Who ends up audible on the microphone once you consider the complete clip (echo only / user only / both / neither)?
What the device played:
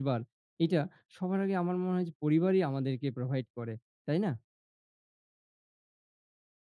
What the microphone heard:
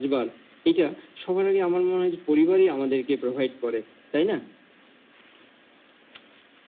echo only